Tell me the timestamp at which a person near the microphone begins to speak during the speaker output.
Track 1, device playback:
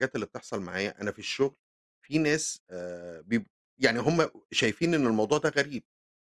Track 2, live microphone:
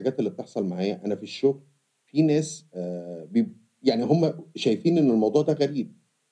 none

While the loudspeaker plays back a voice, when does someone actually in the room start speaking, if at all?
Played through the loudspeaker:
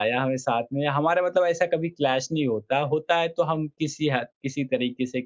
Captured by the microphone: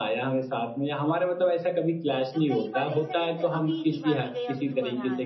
2.3 s

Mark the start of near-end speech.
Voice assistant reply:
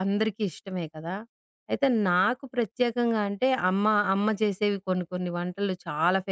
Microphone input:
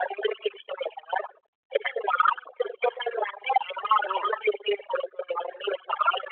4.0 s

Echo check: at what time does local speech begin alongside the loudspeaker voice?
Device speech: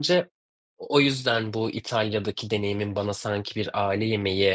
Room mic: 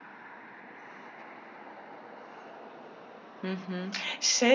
3.4 s

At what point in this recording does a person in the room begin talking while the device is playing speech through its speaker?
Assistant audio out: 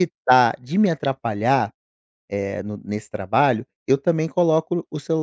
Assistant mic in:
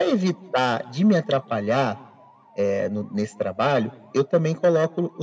none

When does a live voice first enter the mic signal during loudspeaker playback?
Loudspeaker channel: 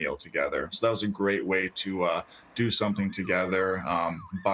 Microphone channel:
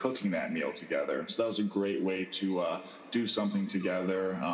none

